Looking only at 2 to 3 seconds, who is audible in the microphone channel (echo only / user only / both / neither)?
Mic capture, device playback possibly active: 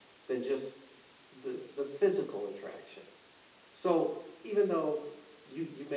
echo only